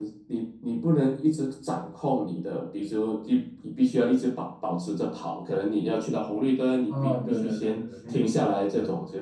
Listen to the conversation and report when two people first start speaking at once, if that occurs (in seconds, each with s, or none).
6.9 s